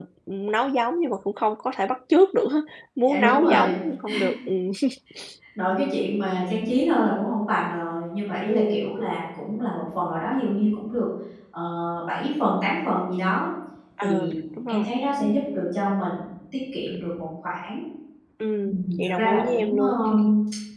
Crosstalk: present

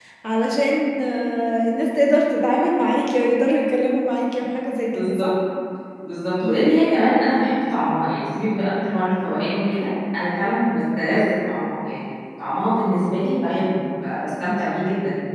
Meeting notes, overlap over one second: none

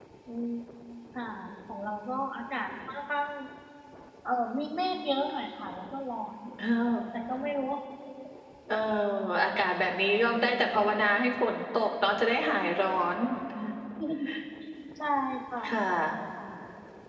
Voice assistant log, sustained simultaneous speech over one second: none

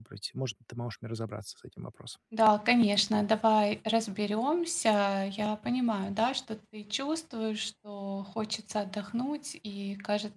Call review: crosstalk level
none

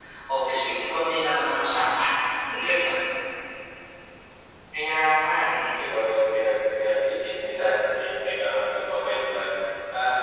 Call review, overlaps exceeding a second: none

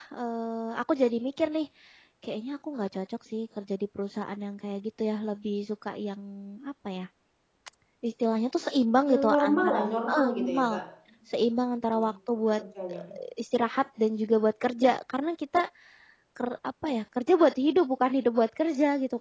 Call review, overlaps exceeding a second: present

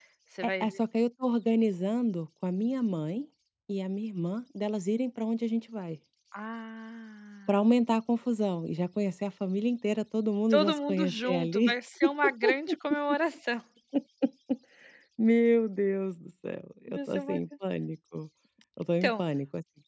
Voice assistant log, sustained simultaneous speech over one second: present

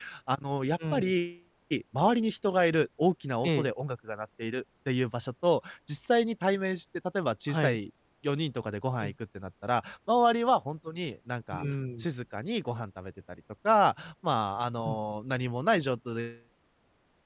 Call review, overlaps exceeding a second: none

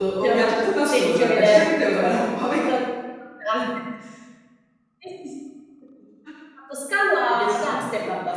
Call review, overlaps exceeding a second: present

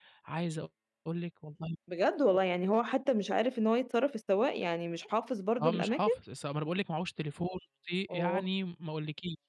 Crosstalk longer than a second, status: none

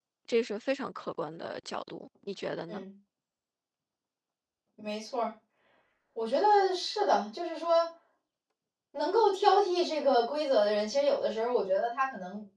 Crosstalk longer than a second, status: none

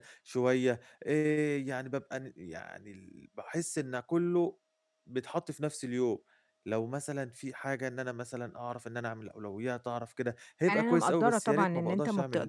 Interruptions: present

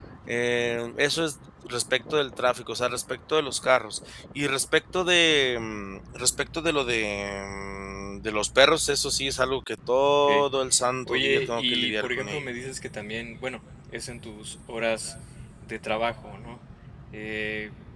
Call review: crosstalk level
present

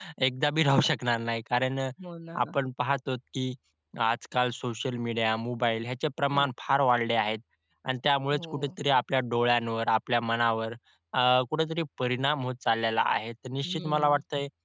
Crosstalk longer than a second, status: none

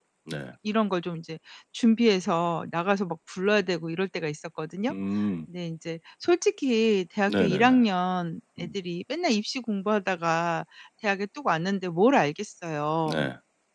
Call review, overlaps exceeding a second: none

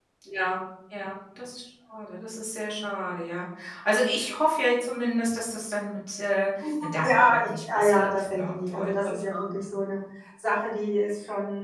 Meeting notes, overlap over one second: present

